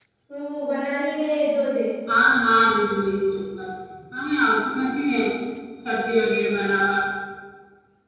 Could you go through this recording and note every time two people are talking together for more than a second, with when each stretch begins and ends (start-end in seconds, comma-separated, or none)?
none